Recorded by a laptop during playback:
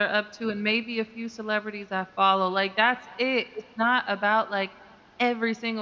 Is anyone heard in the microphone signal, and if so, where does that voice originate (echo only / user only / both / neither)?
user only